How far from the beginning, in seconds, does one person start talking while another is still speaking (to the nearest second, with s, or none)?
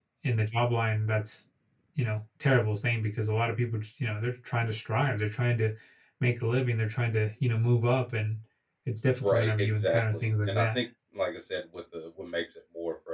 9 s